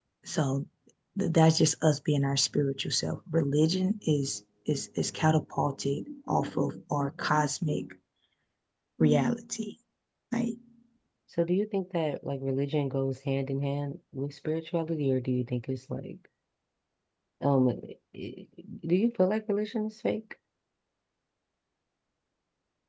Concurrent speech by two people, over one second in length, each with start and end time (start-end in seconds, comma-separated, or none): none